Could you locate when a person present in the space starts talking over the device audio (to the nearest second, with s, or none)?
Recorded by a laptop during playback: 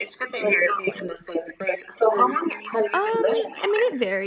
3 s